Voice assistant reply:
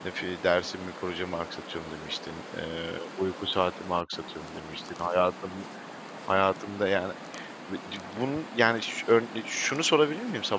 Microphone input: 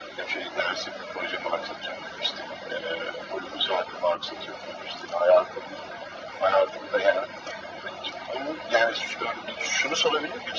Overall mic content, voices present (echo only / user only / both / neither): echo only